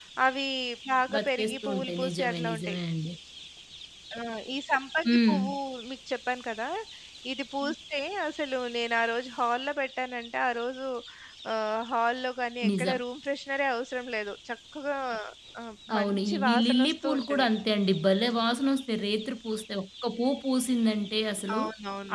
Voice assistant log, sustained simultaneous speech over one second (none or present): present